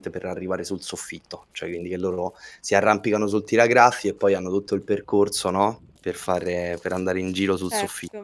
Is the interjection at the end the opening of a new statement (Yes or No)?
Yes